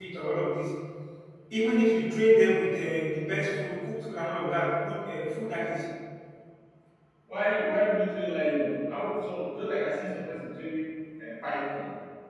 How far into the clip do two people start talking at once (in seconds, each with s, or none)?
none